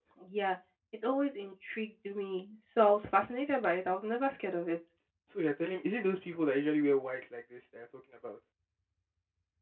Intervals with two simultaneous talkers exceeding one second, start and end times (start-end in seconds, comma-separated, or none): none